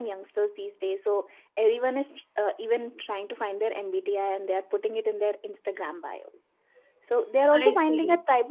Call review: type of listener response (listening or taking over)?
listening